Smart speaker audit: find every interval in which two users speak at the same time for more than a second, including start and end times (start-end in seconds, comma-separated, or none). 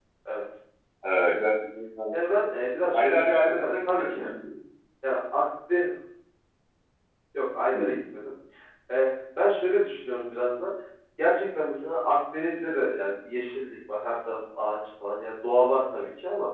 2.9-4.2